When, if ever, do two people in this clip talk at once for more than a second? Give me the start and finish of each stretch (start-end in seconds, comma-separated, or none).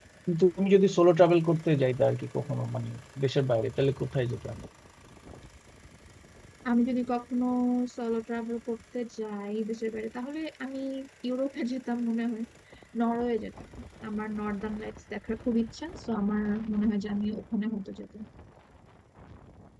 none